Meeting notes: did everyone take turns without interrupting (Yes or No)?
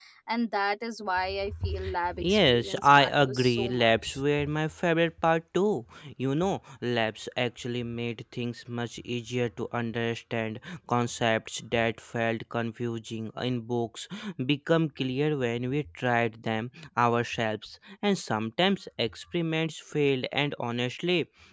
No